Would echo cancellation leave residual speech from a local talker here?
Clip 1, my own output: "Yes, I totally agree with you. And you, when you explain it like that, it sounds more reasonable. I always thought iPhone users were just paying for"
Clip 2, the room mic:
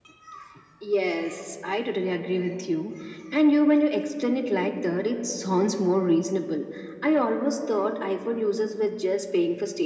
No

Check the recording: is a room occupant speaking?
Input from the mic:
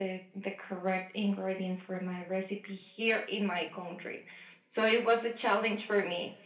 No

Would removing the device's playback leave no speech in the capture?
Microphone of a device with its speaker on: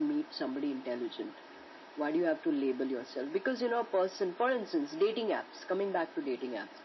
Yes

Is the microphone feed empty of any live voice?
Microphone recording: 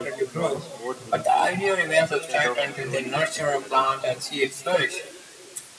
No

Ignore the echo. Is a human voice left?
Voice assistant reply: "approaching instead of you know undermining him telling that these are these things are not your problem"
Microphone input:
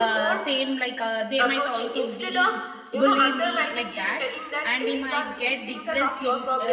Yes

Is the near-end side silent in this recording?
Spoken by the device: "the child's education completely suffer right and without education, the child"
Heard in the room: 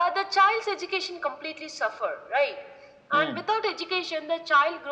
No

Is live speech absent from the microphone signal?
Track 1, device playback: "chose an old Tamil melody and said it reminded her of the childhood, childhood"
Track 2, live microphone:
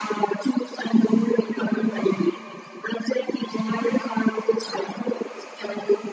Yes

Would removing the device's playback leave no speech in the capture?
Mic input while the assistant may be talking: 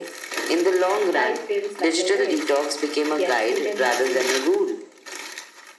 Yes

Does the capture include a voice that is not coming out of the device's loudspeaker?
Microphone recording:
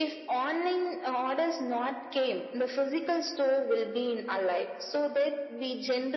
No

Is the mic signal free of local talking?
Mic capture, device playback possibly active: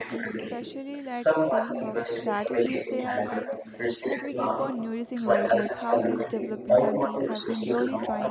No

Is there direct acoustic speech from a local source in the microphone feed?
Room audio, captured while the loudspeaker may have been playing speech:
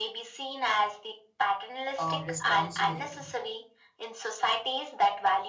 Yes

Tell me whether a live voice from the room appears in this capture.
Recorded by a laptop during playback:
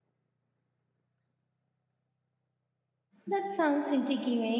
Yes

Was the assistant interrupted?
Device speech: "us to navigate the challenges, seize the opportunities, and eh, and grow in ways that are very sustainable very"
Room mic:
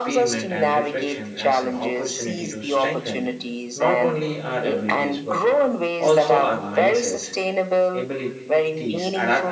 Yes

